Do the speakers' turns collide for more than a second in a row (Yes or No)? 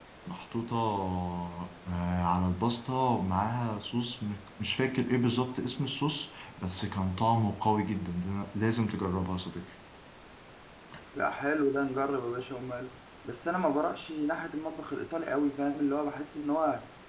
No